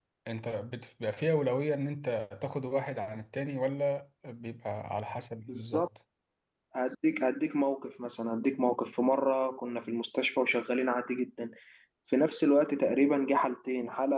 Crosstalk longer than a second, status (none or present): none